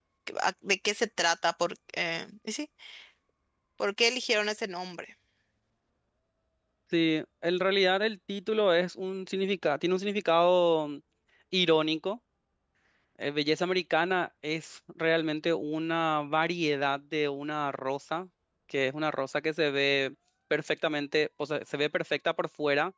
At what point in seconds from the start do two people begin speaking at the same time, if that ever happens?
none

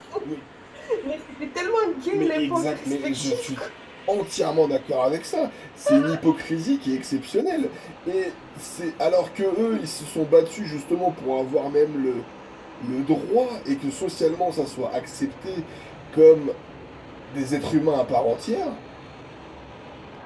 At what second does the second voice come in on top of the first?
2 s

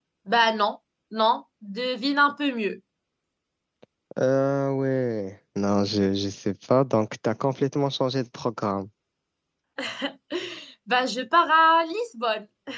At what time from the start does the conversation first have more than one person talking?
none

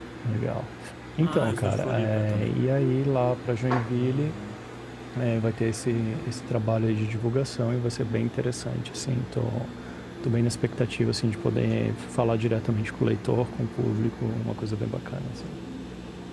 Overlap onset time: 1 s

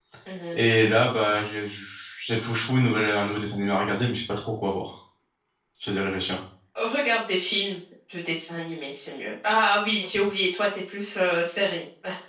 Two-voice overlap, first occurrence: none

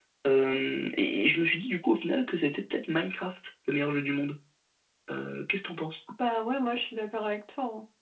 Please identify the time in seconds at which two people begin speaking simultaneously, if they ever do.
none

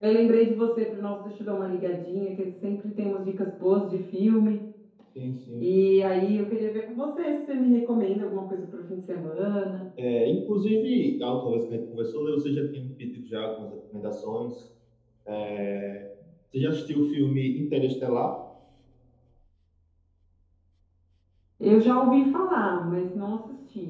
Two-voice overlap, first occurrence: none

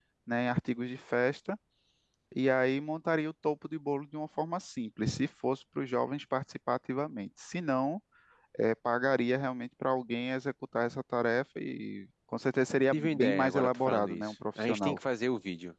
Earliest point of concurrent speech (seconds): 13 s

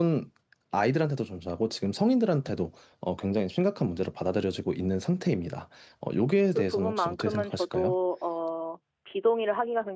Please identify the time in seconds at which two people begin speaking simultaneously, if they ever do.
7 s

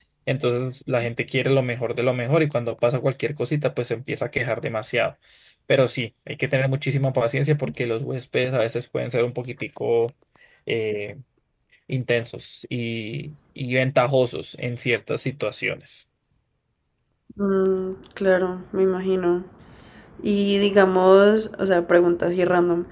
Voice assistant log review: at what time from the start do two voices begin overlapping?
none

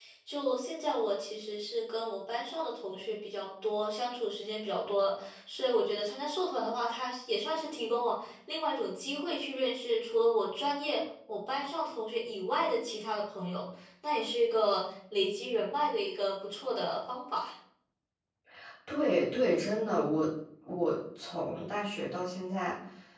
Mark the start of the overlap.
none

